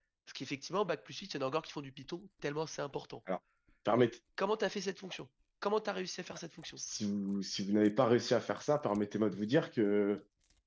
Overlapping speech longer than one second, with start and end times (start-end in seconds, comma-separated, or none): none